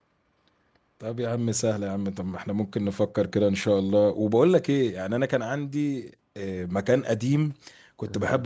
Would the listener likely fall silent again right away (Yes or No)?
Yes